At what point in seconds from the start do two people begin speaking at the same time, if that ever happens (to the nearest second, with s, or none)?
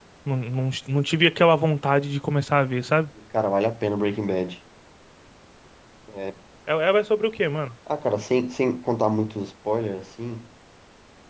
none